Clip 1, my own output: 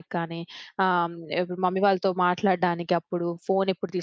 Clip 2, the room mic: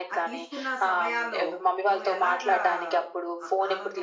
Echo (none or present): present